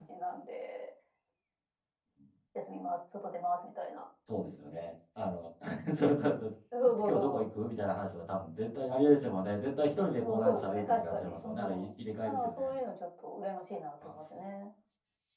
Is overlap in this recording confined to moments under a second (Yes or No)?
No